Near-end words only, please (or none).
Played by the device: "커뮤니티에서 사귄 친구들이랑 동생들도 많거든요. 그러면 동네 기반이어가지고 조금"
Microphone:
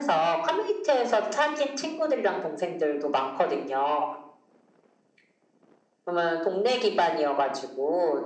none